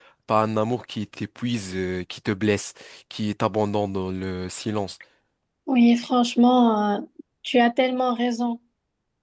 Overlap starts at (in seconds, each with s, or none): none